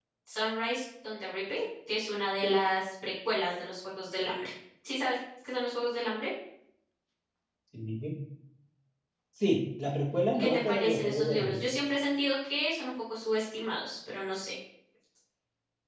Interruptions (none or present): present